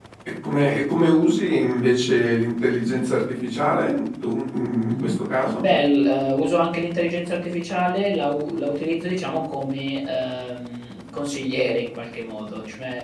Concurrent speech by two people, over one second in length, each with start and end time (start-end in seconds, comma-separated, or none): none